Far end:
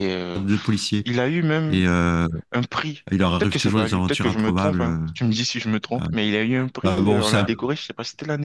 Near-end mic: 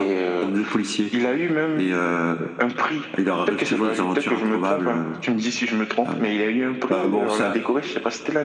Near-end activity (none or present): none